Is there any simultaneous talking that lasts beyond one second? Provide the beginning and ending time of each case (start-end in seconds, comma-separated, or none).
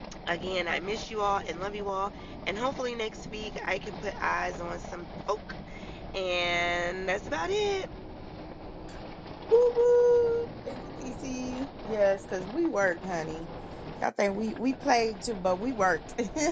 none